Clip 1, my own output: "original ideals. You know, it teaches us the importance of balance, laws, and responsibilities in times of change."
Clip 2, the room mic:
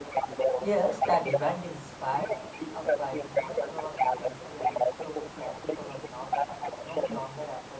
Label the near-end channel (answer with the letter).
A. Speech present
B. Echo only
A